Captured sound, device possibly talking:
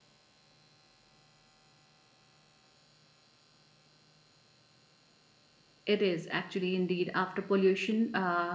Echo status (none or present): none